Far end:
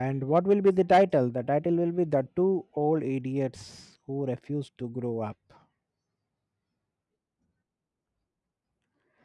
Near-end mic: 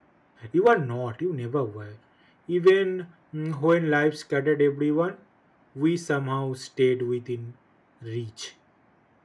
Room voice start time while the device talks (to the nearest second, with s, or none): 1 s